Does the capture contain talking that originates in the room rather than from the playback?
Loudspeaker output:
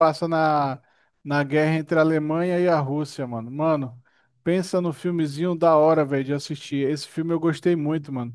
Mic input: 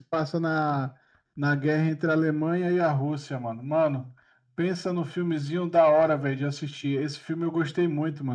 No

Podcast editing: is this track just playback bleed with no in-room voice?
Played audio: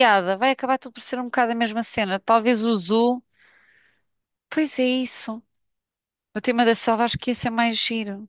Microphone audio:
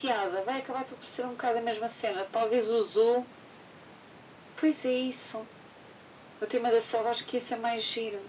Yes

